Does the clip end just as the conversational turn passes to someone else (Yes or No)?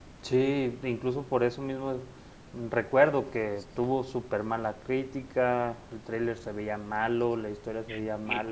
Yes